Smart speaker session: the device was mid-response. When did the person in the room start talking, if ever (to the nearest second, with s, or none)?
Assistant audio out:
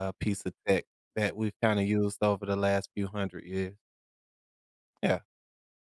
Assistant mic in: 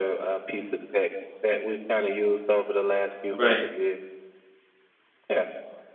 3 s